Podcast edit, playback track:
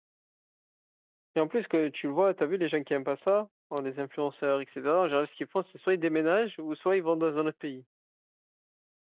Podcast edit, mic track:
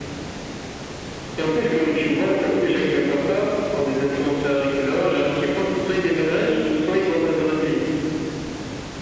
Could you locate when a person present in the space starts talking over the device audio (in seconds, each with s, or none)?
none